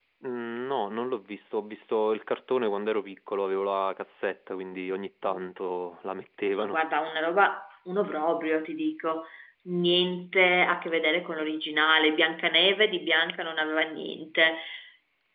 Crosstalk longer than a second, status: none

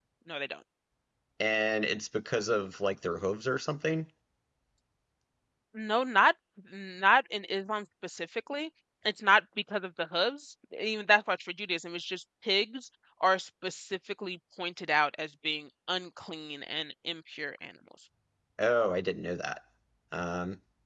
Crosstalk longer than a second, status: none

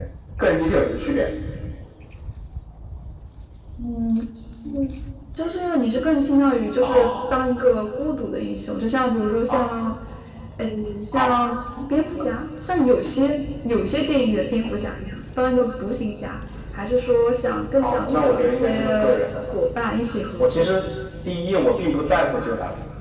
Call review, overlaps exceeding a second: present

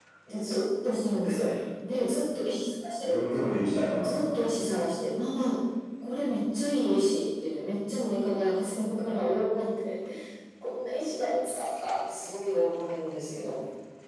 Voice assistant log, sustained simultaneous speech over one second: none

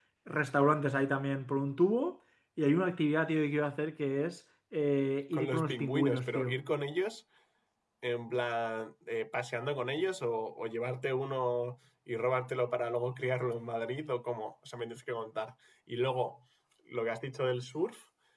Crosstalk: present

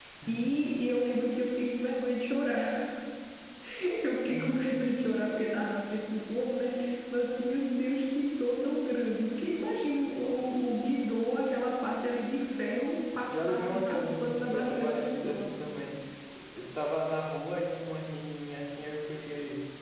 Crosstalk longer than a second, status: present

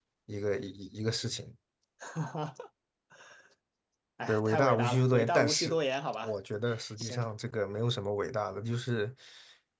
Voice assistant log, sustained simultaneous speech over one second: present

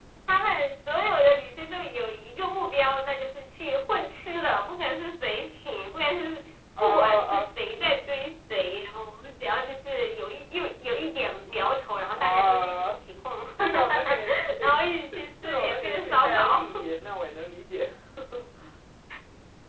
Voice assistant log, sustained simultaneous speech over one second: present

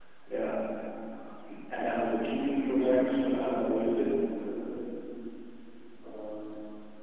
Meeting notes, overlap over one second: present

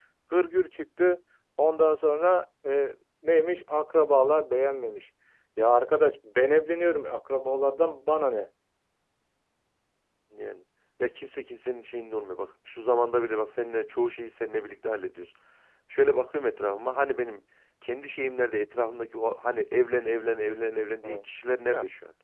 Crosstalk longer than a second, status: none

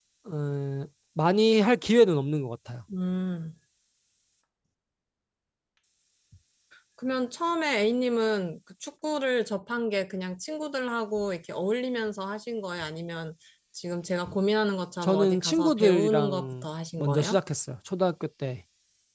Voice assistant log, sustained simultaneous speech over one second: present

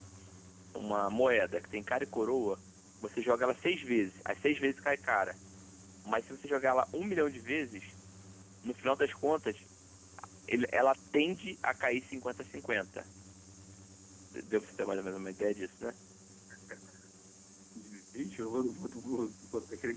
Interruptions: none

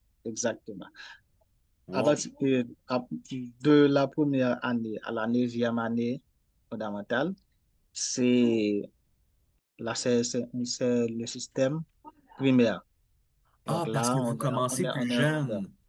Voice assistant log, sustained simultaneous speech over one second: present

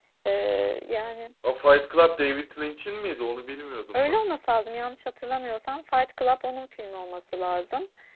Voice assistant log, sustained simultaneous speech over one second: none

